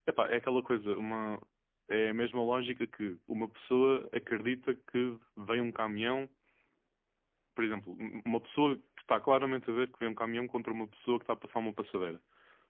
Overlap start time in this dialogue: none

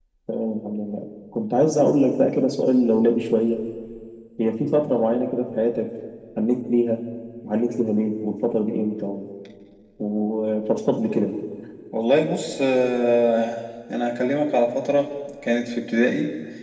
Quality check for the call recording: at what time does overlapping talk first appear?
none

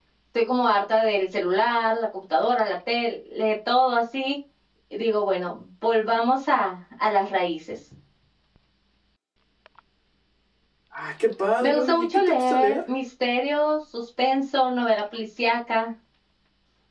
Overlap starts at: 11.6 s

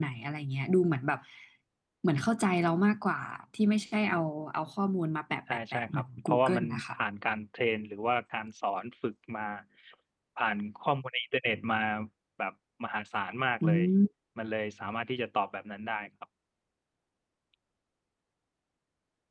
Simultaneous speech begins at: 5.5 s

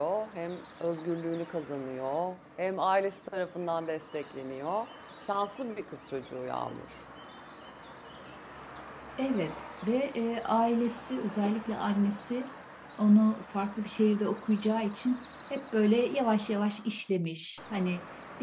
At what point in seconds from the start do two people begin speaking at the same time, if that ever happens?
none

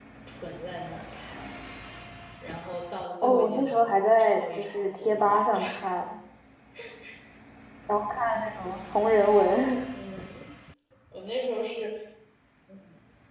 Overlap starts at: 3.2 s

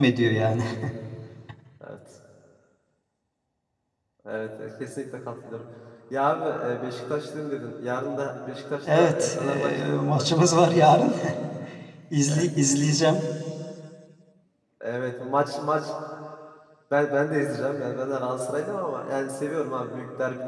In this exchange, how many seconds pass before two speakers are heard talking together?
8.8 s

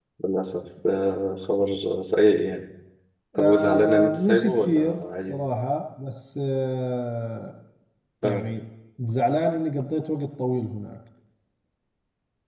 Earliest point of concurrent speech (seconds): 3.4 s

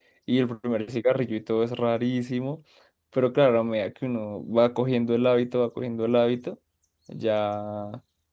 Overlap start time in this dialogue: none

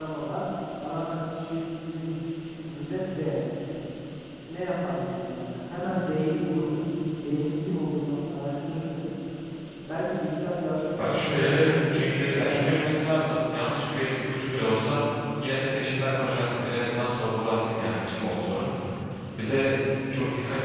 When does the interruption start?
10.9 s

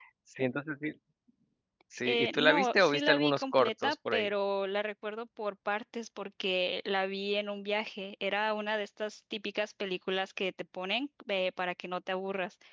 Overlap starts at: 2.0 s

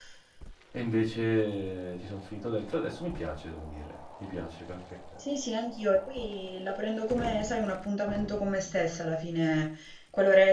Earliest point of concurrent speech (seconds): none

